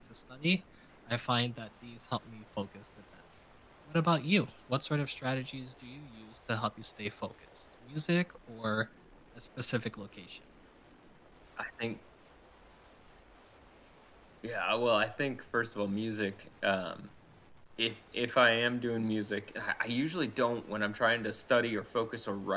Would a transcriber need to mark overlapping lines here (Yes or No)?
No